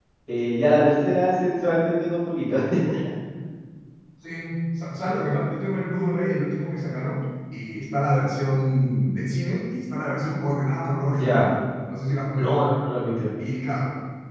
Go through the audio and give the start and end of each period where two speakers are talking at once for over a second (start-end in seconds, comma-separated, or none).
none